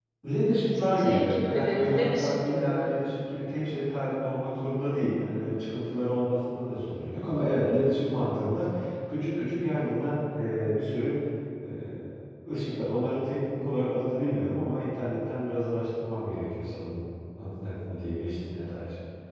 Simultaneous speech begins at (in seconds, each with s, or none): 0.8 s